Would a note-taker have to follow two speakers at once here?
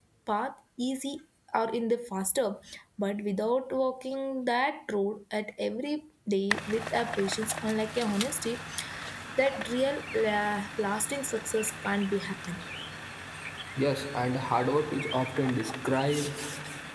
No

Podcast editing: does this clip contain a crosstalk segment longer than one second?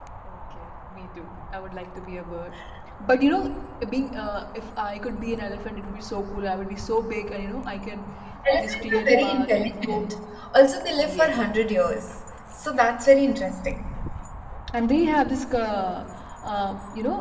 Yes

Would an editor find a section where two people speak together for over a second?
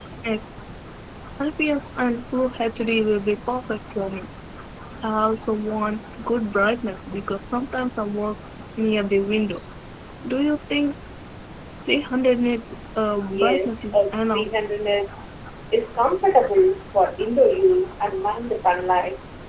Yes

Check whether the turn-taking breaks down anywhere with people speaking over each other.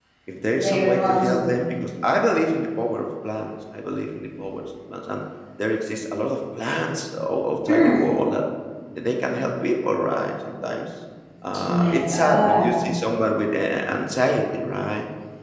Yes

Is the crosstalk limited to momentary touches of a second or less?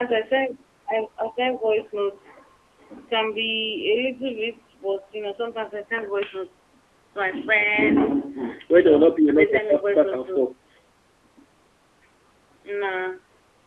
No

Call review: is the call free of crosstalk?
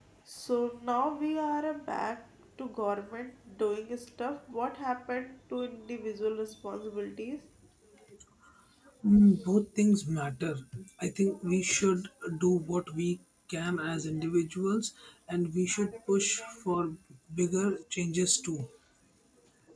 Yes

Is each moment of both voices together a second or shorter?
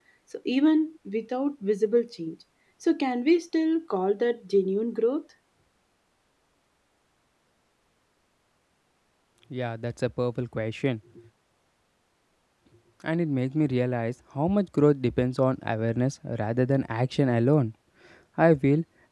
Yes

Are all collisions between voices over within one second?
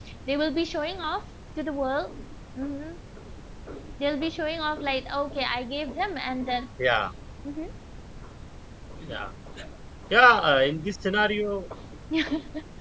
Yes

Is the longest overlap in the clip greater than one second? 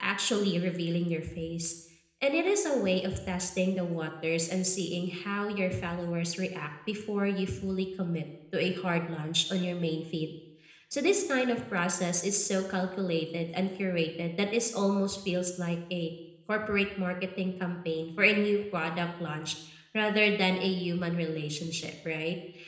No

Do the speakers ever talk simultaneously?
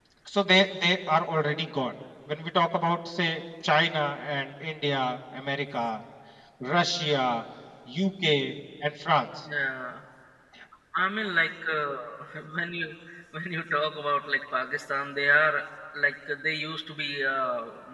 No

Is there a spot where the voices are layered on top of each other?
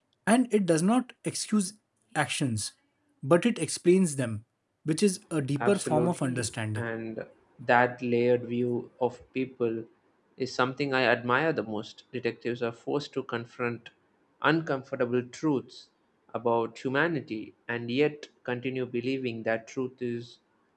Yes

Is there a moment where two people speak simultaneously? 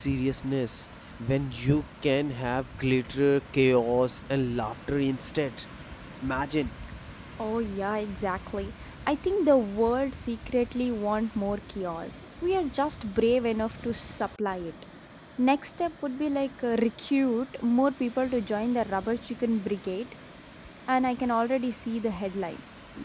No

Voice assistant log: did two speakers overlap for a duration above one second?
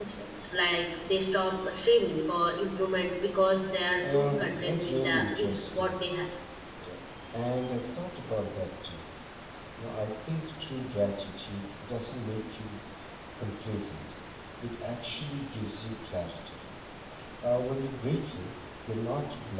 Yes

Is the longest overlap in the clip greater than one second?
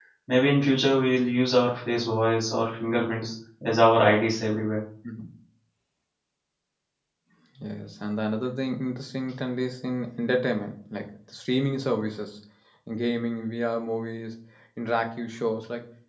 No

